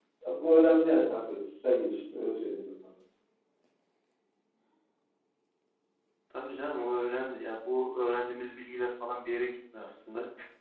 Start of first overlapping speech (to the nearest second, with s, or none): none